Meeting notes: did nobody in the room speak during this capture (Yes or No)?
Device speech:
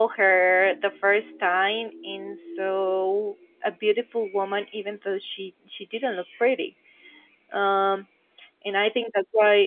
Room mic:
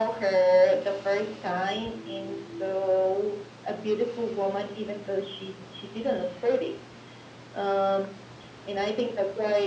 Yes